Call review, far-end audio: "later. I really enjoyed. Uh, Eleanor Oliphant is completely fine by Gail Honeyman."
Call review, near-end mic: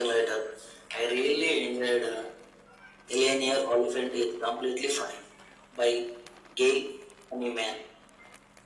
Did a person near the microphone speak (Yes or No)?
No